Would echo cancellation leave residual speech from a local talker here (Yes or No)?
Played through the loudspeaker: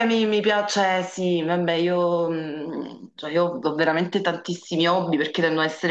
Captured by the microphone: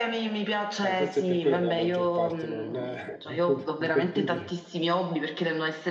Yes